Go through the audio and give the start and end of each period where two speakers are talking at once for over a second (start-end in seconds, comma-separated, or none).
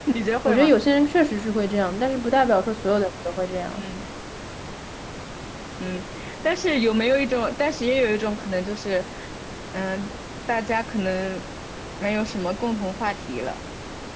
none